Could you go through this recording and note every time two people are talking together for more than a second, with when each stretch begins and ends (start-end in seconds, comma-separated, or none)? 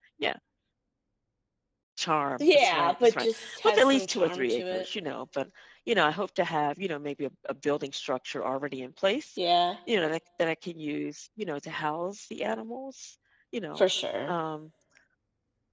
2.4-4.8